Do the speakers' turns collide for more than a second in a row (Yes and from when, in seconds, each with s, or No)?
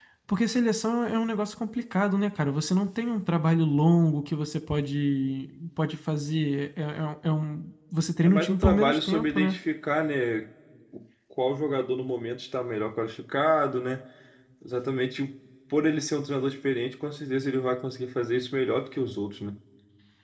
Yes, from 8.2 s